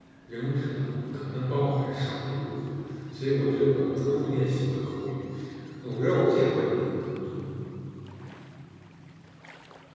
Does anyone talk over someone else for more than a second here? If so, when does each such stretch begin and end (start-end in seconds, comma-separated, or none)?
none